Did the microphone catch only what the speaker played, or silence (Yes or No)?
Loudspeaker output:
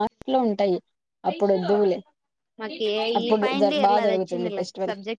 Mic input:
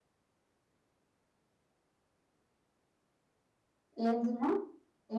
No